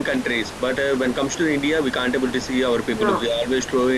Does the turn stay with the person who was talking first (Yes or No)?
Yes